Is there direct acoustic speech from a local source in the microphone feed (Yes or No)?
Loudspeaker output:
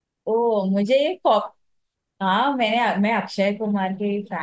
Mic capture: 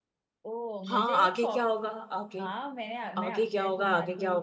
Yes